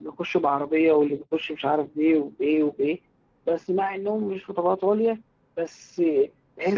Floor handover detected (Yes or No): No